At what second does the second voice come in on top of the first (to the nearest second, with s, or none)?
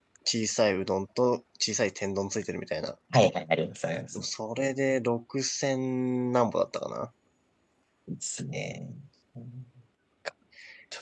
none